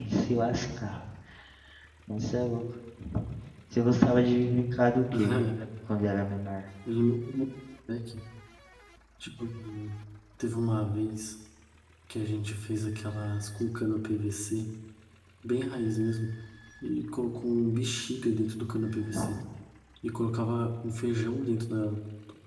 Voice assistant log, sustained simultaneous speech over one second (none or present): none